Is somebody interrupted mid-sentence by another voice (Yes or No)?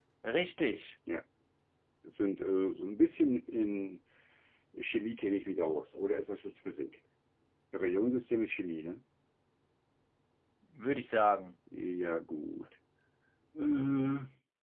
No